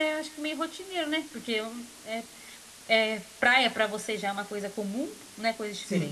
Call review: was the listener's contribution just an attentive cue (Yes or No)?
No